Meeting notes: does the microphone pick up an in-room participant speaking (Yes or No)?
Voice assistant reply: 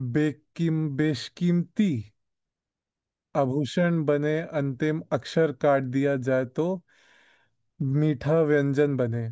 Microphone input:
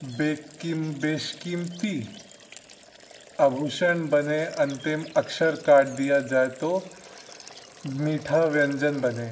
No